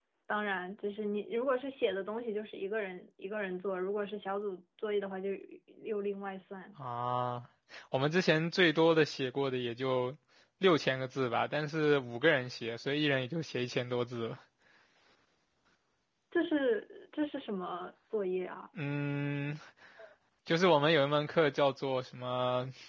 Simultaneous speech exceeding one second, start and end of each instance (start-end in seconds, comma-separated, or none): none